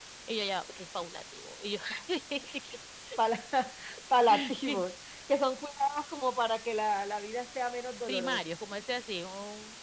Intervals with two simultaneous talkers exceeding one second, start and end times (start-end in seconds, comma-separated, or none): none